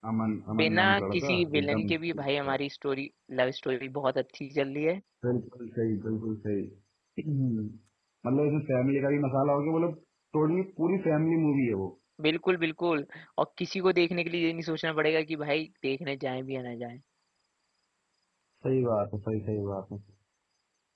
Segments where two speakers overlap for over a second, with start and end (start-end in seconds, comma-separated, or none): 0.6-2.6